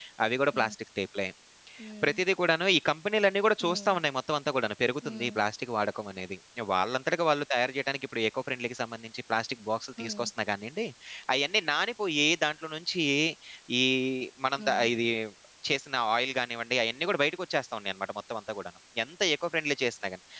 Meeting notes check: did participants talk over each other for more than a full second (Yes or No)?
No